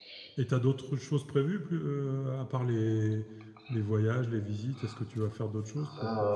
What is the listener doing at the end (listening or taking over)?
taking over